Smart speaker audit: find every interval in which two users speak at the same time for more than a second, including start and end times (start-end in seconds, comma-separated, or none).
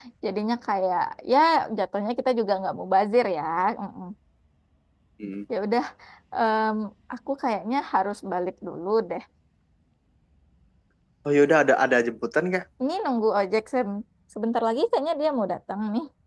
none